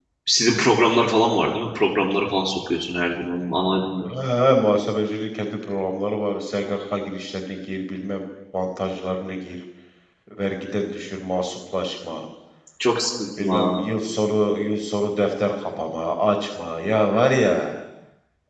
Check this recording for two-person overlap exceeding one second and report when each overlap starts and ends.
none

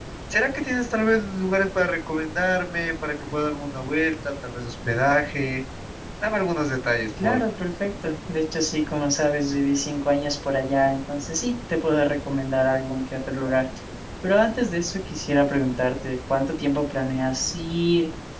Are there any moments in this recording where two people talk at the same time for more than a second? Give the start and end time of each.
none

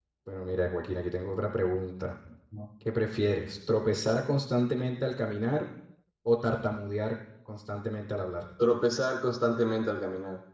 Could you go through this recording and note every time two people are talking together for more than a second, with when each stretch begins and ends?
none

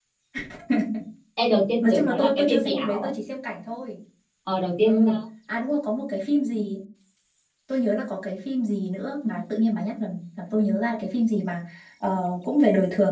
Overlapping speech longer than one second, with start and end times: 1.9-3.1

